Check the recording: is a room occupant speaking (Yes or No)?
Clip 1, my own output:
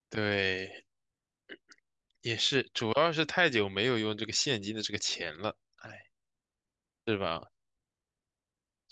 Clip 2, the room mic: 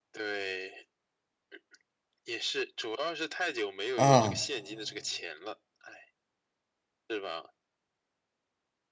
Yes